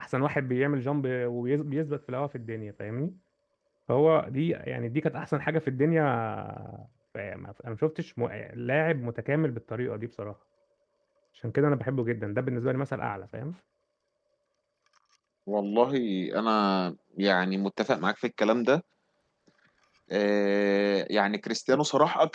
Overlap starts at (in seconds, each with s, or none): none